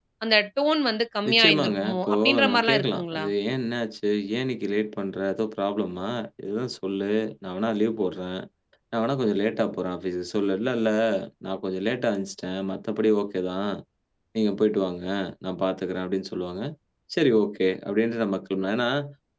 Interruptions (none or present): present